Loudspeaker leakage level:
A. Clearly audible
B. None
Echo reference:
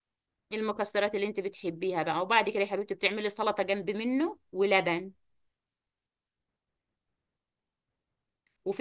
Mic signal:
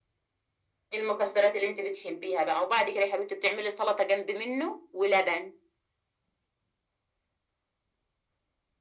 A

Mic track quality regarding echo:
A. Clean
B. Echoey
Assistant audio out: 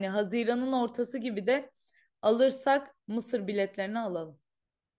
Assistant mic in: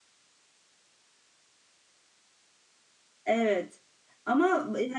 A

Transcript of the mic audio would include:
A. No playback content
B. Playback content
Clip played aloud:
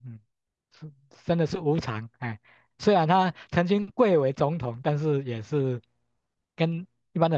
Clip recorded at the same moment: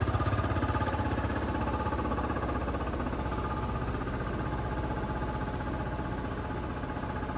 A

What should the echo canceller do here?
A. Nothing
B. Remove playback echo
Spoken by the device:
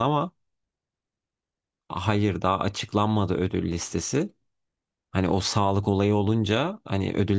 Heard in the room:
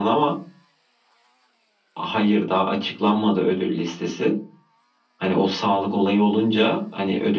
B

